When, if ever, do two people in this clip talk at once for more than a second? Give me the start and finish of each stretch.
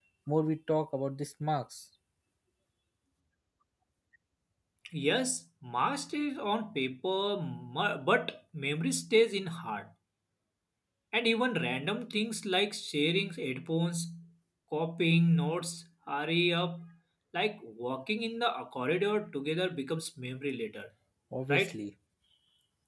none

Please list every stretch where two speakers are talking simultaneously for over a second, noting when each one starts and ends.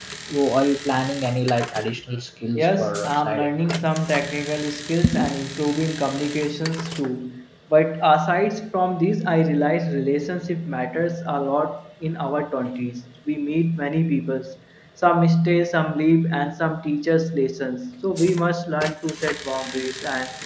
2.5-3.9

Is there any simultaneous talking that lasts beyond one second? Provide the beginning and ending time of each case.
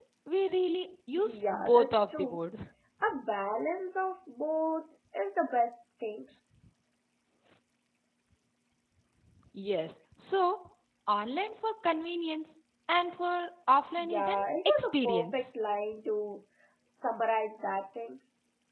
1.2-2.4, 14.0-15.5

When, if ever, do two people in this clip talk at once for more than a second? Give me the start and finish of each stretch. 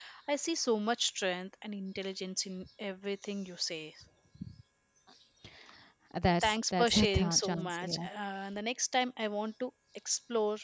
6.4-8.1

